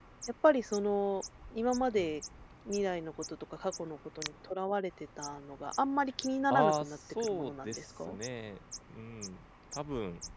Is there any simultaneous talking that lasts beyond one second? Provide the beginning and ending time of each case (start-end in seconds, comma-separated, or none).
6.5-8.2